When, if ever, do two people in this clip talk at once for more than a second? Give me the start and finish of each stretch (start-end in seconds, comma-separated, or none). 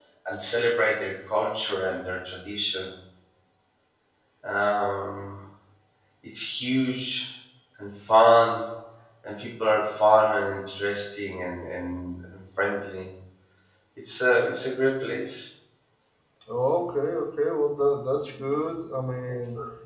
none